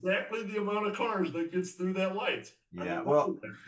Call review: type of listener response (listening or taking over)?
taking over